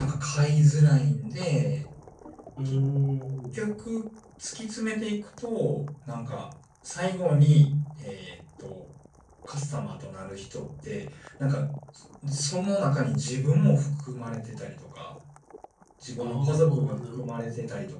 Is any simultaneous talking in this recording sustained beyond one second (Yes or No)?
Yes